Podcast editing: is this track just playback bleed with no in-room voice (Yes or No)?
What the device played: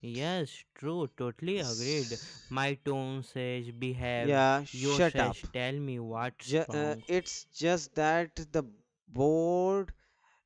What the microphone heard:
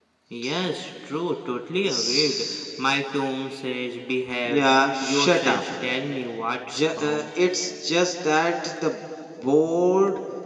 Yes